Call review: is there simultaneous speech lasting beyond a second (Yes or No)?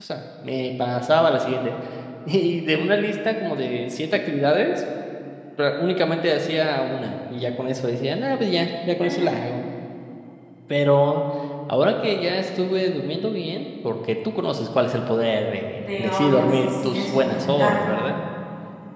Yes